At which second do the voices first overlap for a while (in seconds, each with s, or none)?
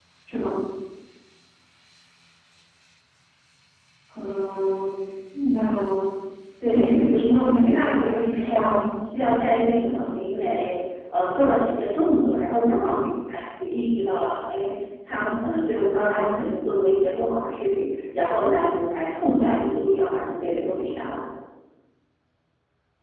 6.7 s